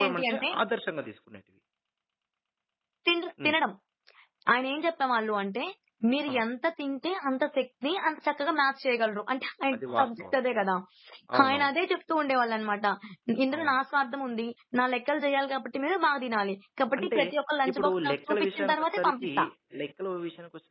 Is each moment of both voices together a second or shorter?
No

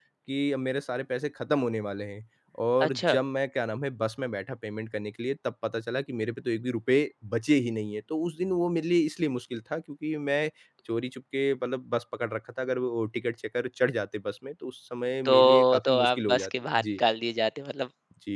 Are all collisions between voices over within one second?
No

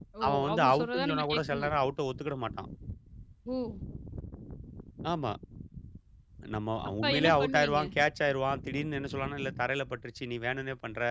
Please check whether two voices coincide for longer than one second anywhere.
Yes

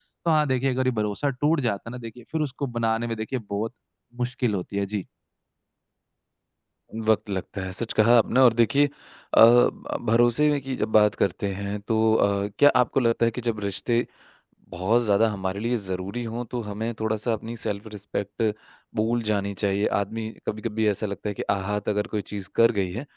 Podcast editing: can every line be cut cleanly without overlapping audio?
Yes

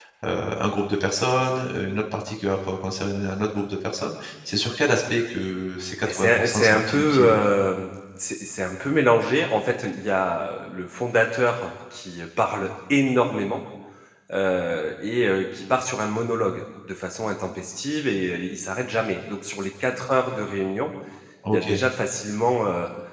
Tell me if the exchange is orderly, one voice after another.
No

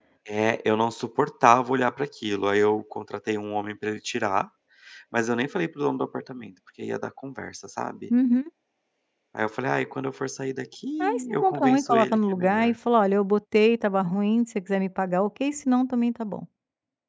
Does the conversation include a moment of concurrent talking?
Yes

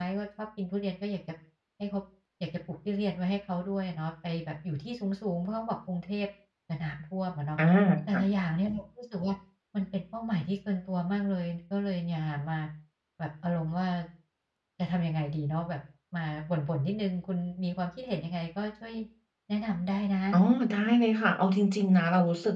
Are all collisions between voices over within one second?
Yes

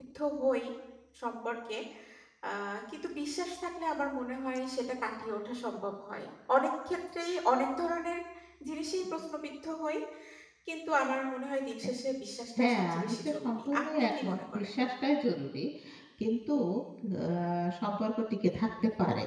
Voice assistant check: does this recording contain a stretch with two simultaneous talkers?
Yes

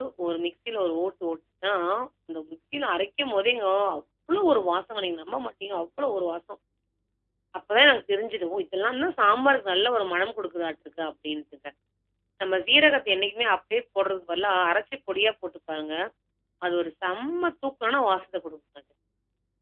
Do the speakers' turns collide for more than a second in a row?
No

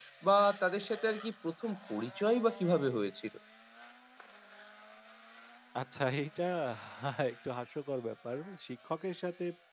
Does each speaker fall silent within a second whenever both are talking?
Yes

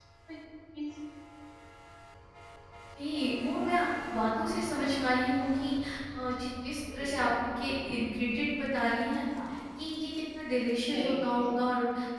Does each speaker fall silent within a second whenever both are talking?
Yes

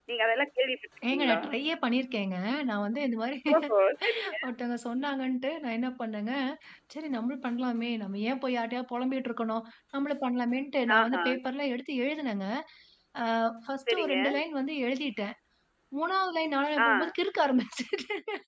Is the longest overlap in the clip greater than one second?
No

